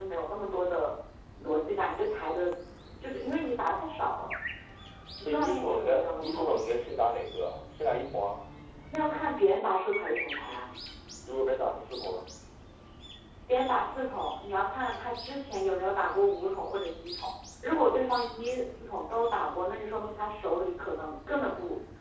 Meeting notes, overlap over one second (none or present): present